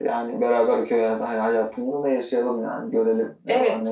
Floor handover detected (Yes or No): Yes